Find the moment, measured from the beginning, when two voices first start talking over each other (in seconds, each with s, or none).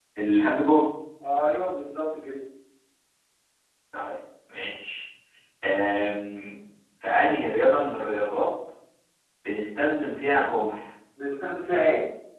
none